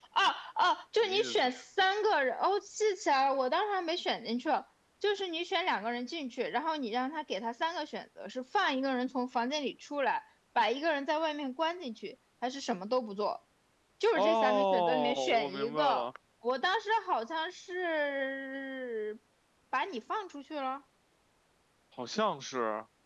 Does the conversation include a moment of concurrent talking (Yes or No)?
Yes